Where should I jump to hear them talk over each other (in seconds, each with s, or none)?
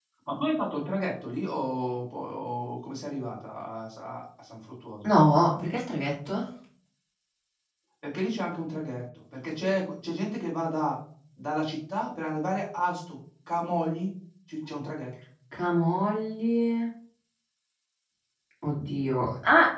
none